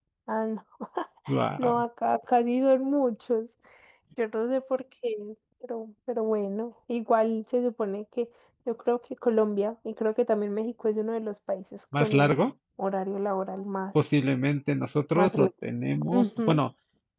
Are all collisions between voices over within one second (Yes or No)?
Yes